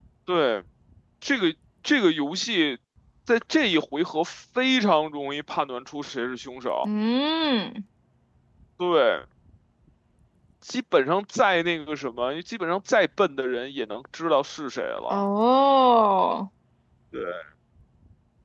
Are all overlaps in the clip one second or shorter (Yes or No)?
Yes